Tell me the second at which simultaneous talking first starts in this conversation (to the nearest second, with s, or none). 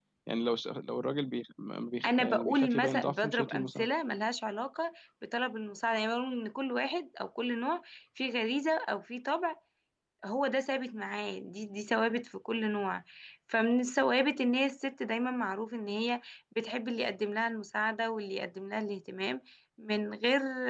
2 s